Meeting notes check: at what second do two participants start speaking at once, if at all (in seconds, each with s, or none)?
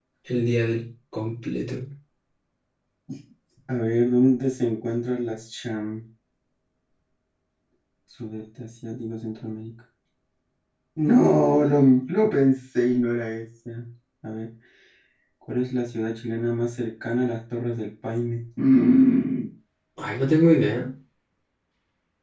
none